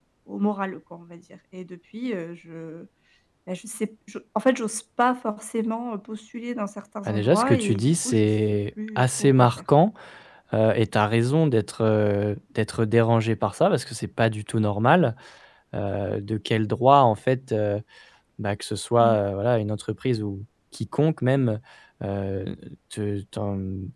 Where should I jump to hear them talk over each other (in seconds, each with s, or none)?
7.1 s